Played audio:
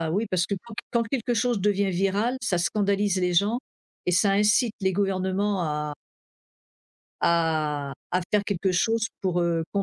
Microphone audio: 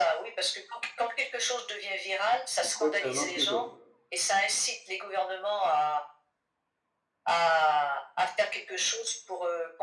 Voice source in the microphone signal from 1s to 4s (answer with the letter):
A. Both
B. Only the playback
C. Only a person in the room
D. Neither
A